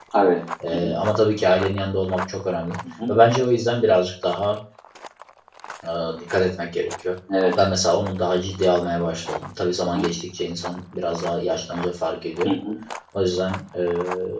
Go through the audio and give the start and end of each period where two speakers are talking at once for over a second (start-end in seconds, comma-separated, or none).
none